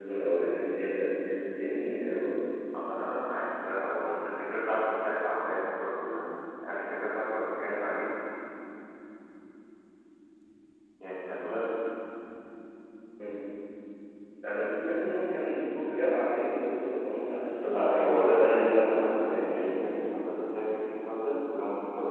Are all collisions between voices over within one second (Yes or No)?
No